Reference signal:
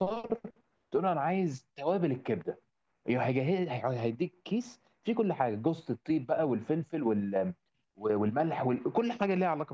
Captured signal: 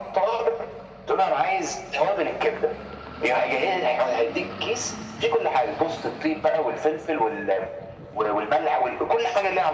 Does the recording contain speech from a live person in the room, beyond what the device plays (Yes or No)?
No